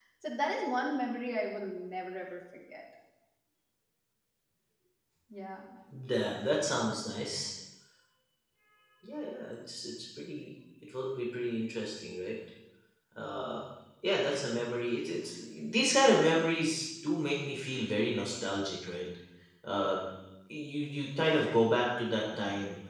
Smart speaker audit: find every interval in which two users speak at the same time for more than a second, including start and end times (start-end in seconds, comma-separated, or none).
none